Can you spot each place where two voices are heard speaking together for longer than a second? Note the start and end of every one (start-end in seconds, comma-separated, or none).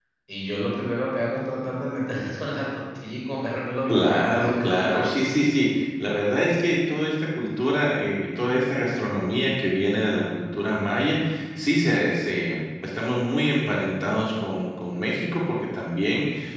3.9-5.3